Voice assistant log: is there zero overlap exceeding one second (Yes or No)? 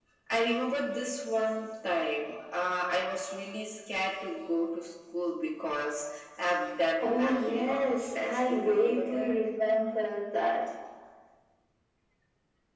No